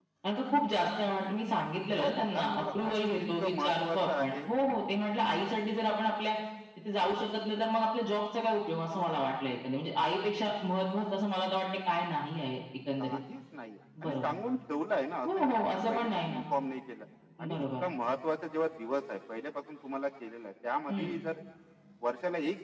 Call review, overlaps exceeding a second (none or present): present